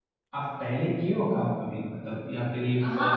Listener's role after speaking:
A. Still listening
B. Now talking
B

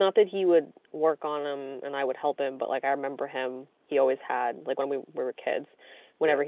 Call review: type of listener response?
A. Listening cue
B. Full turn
A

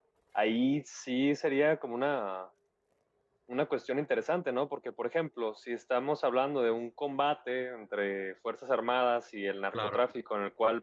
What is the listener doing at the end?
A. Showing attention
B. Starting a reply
A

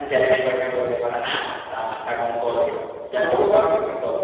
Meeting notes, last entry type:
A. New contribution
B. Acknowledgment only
B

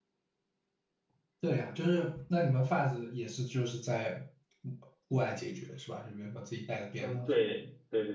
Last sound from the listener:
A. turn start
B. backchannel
A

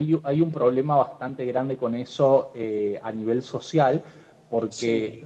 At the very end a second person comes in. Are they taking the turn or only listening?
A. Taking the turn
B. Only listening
B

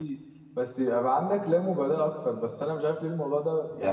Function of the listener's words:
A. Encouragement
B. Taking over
A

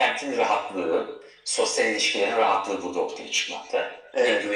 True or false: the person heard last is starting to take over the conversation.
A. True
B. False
B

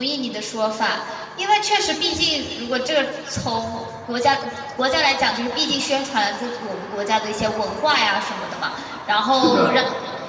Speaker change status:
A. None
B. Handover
A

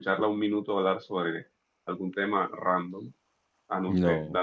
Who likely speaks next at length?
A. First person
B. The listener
A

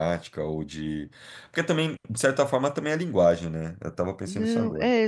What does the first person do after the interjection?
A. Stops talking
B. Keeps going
A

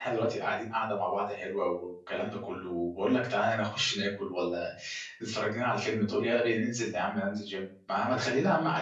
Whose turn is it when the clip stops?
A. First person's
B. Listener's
A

